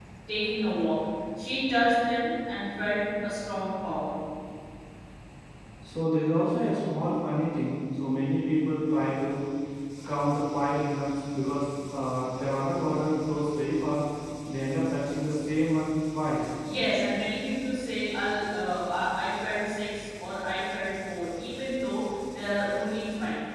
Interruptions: none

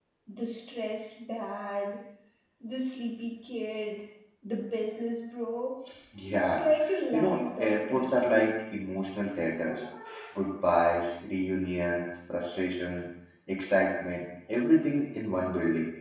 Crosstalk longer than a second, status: present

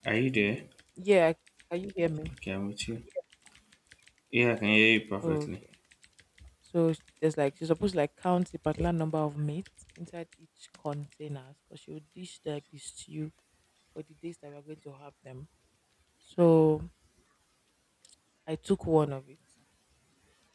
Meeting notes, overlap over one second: none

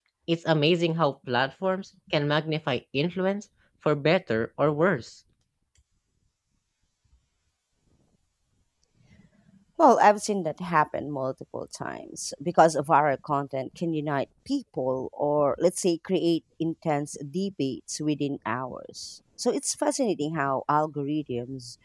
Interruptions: none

